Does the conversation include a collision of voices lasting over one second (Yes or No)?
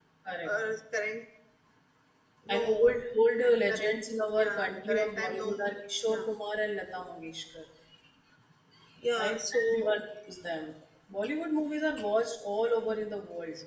Yes